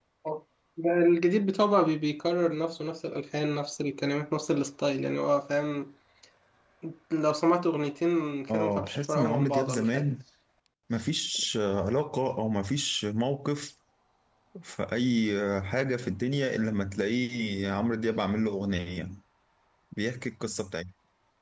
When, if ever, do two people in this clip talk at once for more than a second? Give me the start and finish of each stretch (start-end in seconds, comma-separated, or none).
8.5-10.1